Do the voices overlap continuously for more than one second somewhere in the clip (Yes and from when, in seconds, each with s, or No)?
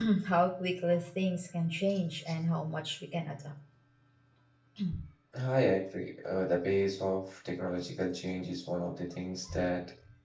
No